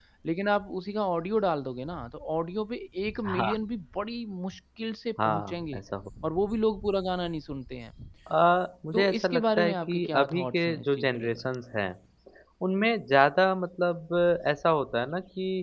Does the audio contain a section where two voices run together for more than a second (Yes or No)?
Yes